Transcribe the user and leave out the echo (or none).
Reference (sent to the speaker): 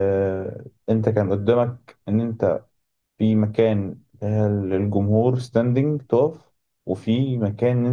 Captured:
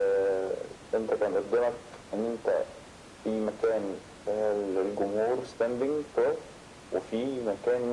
none